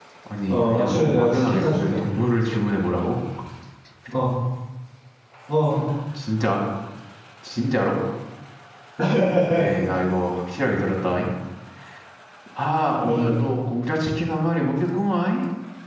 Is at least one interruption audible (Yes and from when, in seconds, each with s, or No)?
Yes, from 0.5 s